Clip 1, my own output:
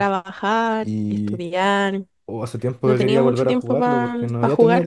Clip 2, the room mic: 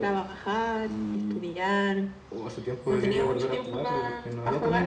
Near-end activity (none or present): none